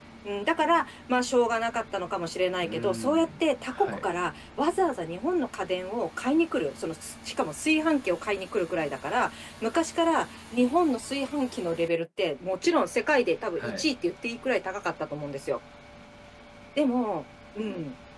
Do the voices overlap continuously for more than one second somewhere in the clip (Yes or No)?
Yes